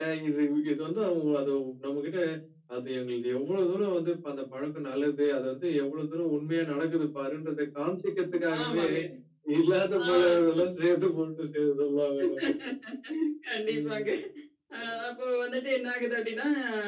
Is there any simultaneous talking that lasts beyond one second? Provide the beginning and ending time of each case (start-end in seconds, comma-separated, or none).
none